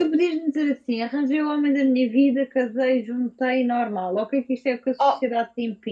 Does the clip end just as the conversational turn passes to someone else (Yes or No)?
No